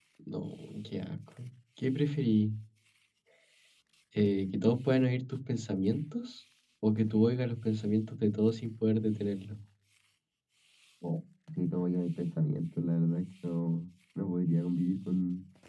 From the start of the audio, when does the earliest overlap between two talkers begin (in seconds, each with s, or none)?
none